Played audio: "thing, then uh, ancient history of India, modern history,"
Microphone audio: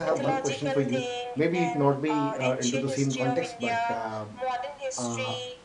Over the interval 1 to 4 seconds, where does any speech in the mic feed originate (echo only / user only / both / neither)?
both